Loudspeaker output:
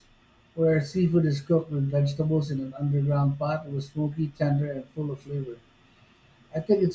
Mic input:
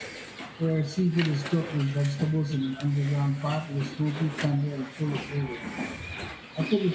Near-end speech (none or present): none